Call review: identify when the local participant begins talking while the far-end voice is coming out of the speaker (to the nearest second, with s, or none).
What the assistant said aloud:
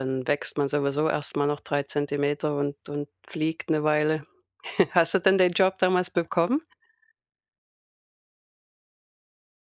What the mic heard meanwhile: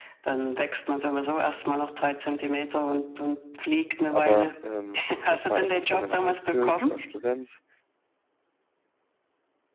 4 s